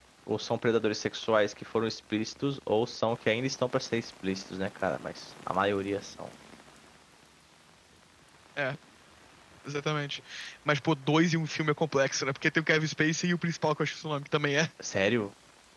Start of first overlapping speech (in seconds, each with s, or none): none